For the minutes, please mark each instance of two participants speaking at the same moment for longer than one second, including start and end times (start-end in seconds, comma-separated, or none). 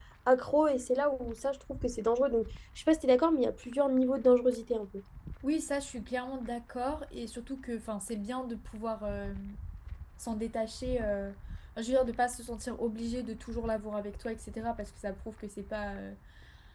none